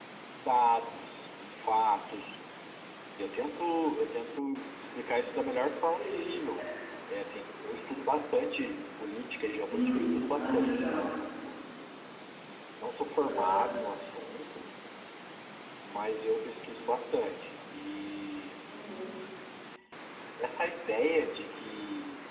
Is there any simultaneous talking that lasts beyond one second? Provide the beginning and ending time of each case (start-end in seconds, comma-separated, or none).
9.7-11.0